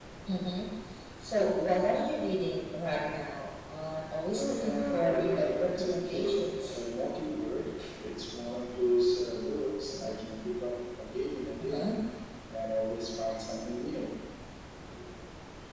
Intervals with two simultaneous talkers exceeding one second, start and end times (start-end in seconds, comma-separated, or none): 4.3-6.8